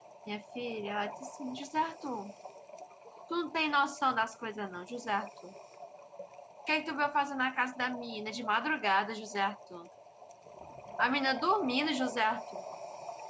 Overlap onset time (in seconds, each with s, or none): none